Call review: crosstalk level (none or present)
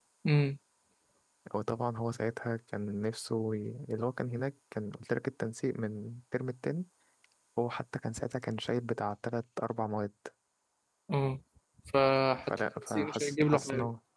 present